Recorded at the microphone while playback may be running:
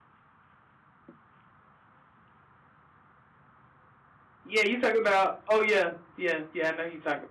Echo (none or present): none